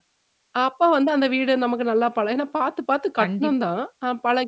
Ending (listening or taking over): listening